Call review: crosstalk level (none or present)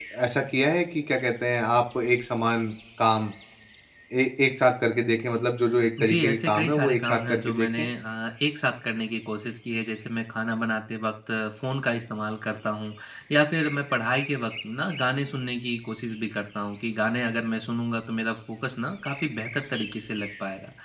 present